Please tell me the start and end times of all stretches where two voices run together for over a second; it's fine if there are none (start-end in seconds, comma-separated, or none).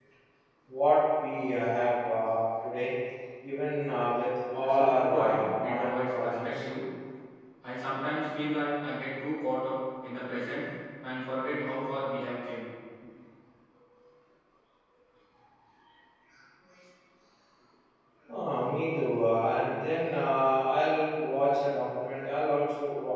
4.5-6.5